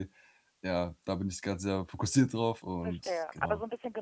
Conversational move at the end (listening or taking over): taking over